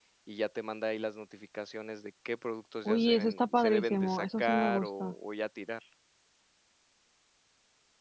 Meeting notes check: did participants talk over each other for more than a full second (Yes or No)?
Yes